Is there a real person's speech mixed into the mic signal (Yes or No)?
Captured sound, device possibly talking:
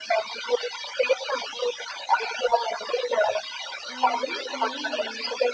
Yes